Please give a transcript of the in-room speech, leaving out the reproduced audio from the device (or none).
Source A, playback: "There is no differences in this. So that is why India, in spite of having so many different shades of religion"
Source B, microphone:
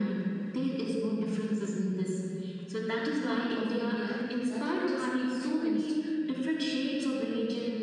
part of India that it has influenced